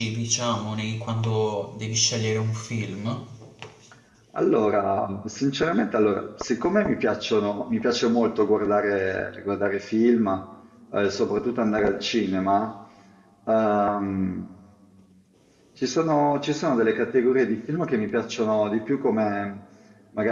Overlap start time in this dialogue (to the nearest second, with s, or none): none